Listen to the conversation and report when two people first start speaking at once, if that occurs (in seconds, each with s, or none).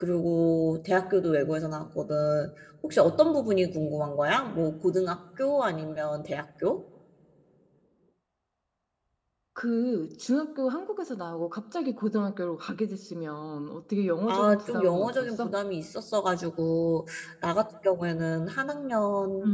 14.3 s